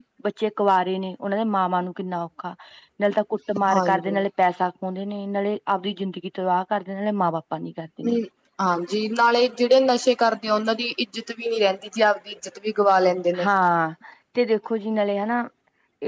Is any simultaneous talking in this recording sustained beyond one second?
No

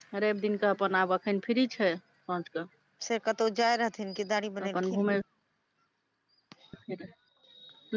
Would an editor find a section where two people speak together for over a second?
No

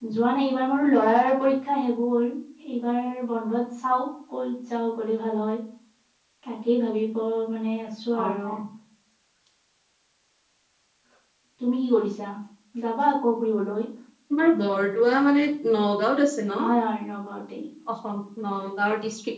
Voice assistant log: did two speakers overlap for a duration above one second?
No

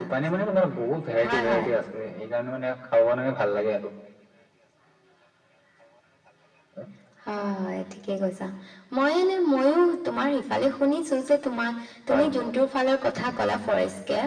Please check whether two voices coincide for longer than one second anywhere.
No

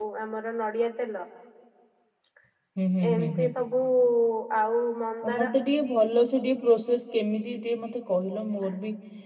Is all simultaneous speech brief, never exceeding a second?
Yes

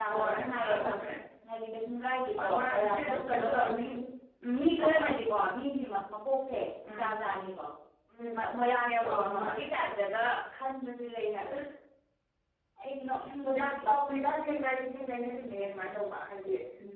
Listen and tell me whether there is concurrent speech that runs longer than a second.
Yes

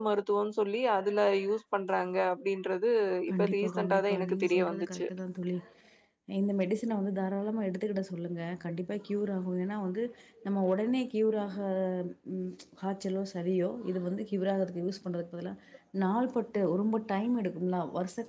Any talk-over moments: Yes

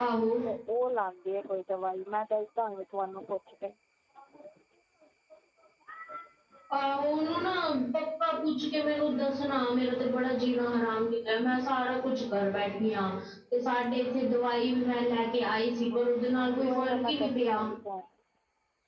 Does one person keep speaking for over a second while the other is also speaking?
Yes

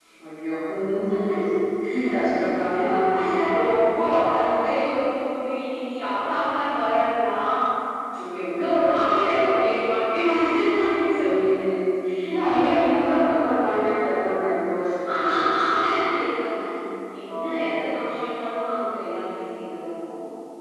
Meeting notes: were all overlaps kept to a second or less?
Yes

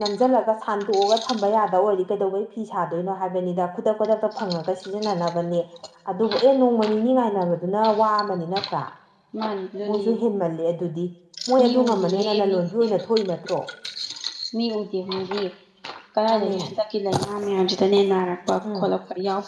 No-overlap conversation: No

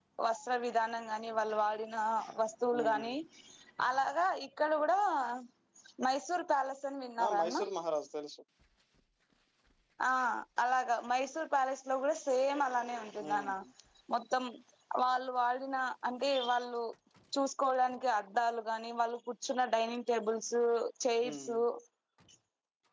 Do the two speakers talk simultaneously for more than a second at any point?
No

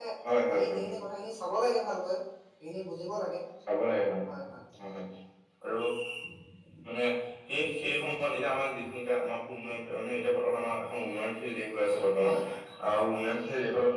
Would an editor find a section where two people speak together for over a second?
No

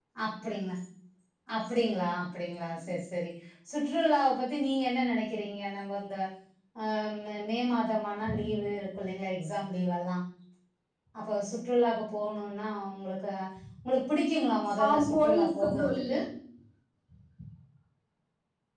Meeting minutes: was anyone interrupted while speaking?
Yes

